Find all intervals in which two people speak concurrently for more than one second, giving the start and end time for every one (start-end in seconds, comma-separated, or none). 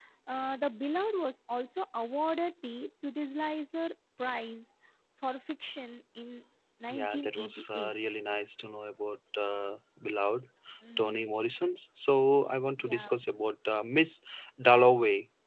6.9-8.1